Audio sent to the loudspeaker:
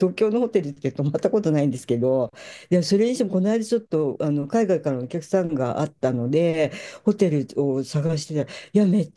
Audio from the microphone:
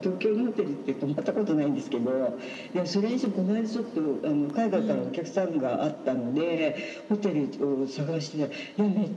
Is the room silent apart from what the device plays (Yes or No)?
No